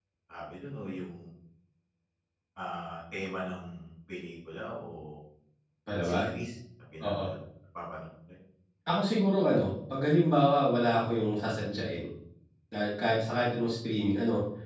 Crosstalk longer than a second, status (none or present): none